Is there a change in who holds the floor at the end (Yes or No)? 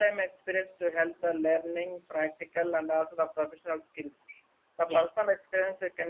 No